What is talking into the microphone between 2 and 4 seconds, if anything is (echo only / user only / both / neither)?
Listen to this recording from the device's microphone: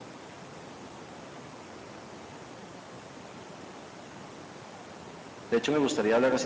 neither